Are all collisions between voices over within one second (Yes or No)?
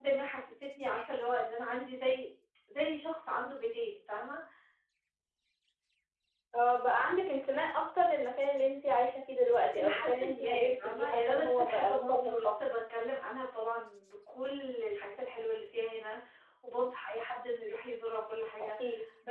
No